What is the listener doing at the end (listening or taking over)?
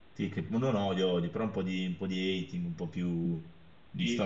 taking over